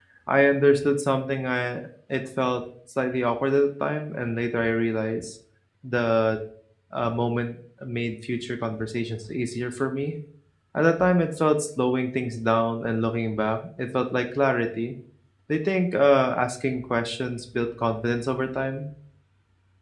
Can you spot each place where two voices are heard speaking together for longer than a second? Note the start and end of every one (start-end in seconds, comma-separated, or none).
none